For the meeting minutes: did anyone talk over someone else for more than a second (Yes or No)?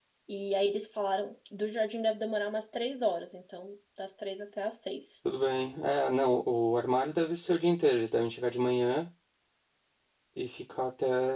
No